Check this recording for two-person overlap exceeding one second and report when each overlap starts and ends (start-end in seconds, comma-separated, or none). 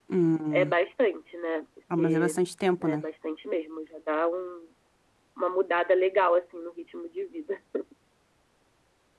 none